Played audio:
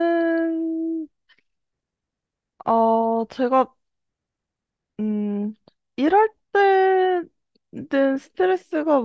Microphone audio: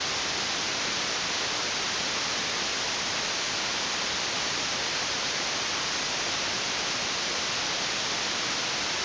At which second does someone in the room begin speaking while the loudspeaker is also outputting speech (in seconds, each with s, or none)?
none